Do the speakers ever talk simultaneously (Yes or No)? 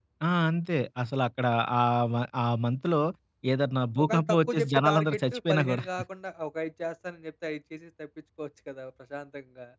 Yes